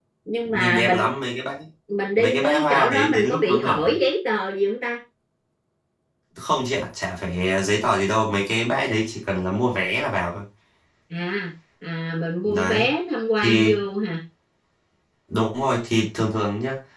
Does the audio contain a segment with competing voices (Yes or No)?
Yes